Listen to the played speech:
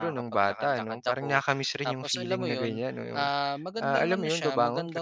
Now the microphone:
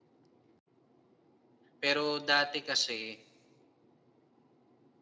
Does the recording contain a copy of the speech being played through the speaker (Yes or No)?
No